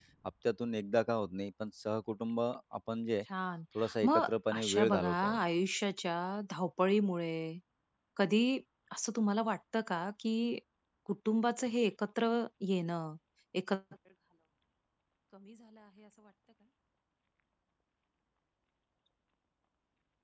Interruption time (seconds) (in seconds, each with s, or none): 4.0 s